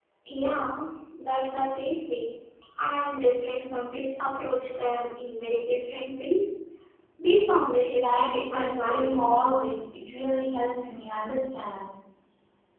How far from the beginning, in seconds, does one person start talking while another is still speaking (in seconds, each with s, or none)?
8.0 s